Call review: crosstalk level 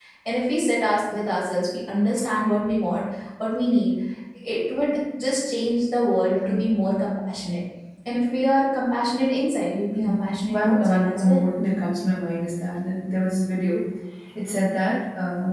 present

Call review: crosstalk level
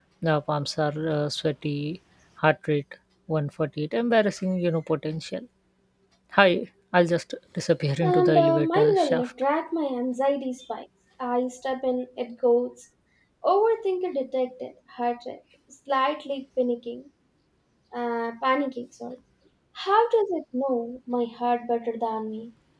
present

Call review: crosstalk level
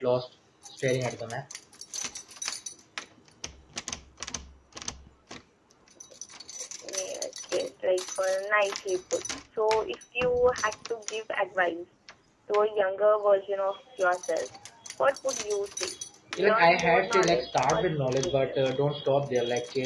present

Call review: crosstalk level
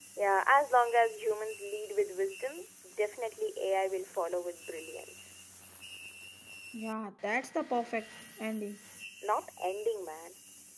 none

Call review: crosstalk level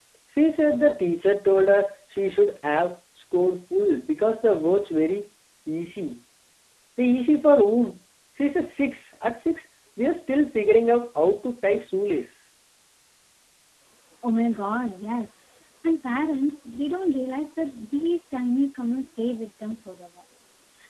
none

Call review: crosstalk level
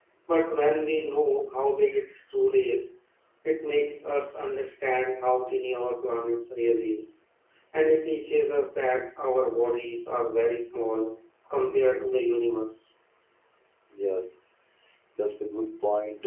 none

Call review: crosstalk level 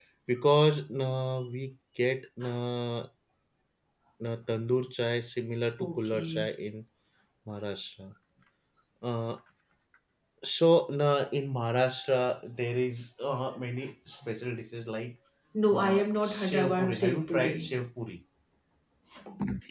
present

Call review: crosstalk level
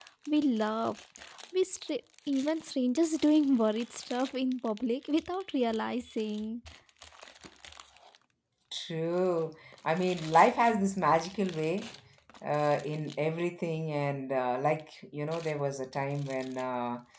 none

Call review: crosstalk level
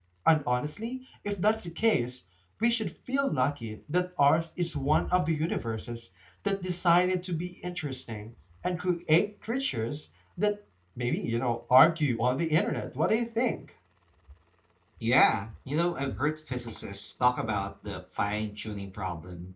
none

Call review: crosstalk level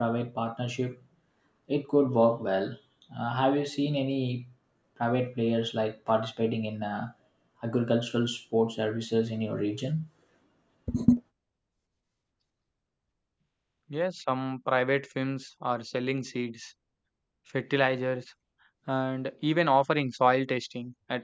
none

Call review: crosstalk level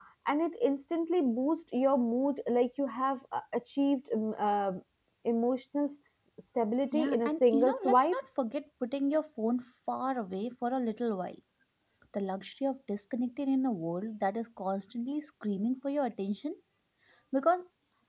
present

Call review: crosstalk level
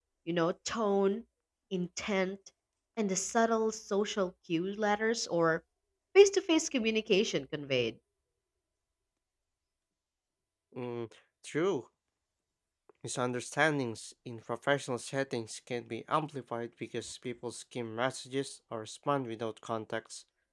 none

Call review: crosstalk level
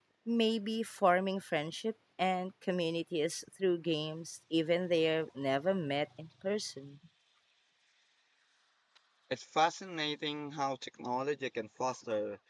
none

